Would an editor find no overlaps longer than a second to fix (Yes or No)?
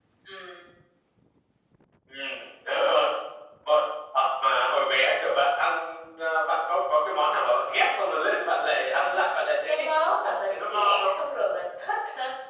No